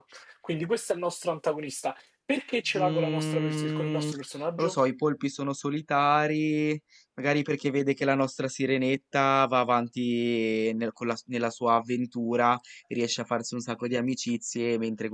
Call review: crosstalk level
present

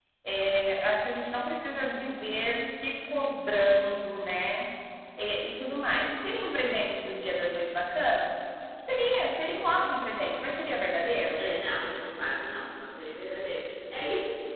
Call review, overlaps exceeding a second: none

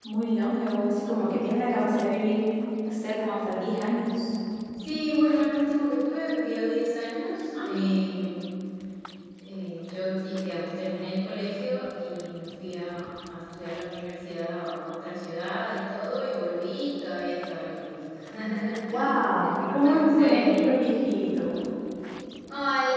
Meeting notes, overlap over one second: present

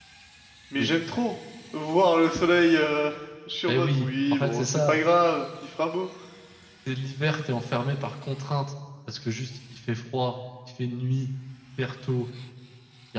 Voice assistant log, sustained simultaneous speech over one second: present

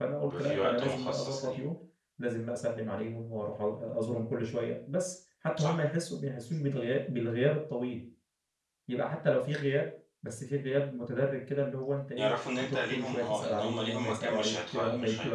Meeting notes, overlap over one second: present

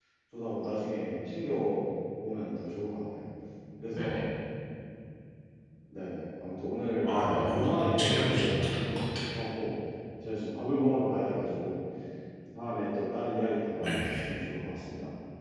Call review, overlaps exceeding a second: present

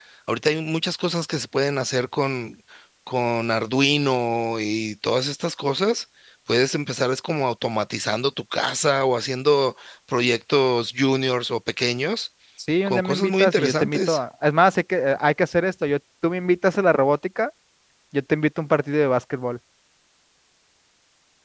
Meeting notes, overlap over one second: present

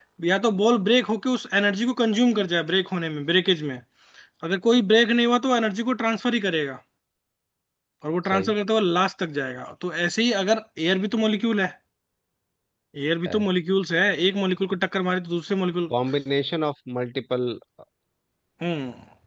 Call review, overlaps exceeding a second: none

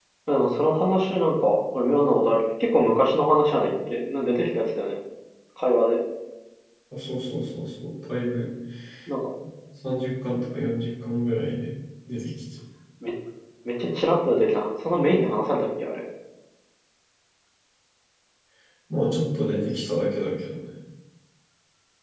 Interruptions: none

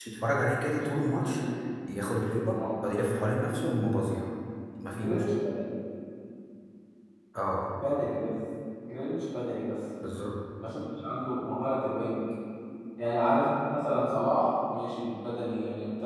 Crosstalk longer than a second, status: none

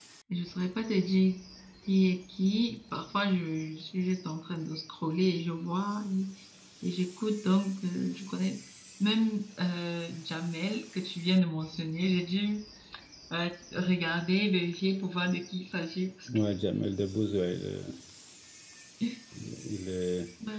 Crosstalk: none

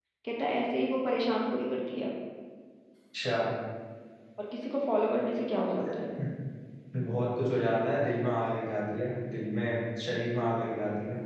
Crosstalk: none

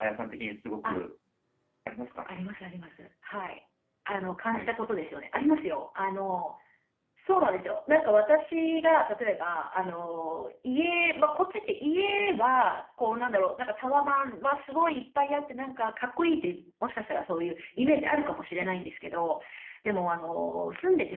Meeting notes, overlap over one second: none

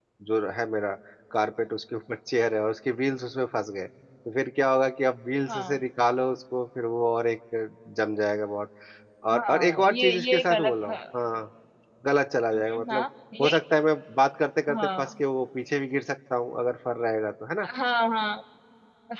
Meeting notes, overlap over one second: present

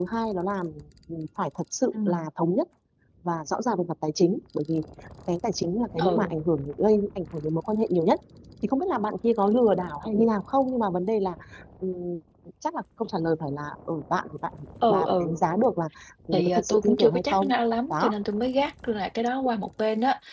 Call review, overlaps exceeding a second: present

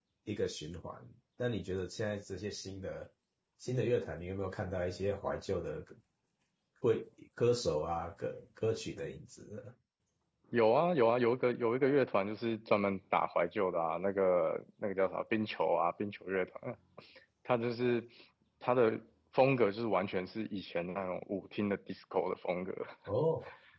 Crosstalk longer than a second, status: none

